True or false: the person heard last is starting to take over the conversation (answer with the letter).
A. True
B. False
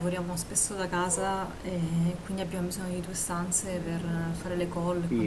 A